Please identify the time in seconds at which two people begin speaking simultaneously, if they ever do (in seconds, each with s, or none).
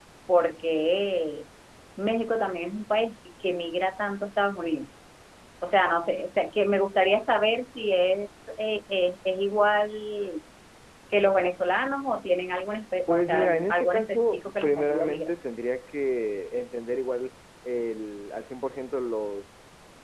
13.1 s